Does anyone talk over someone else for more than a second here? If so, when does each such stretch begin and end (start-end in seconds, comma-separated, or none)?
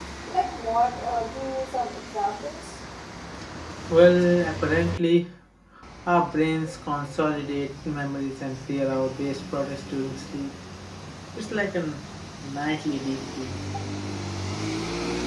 none